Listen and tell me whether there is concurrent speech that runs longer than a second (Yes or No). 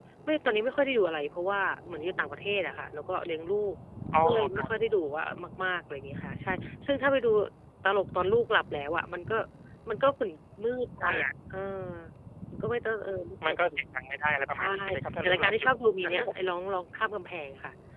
No